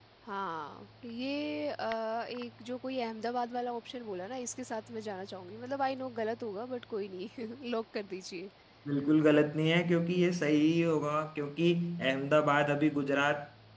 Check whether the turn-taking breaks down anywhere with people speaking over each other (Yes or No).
No